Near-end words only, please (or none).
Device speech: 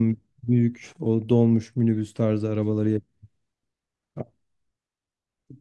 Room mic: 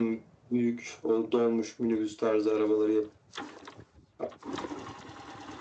none